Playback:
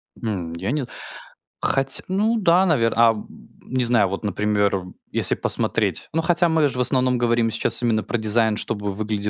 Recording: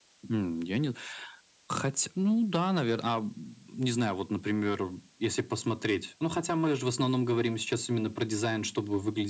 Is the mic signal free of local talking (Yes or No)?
Yes